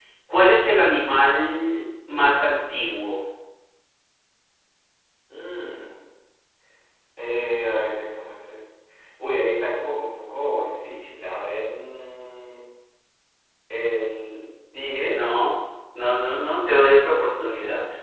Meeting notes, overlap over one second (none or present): none